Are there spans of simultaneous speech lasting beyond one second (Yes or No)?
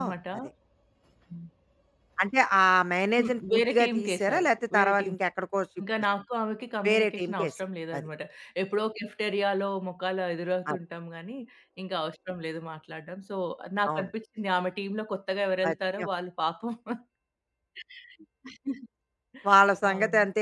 Yes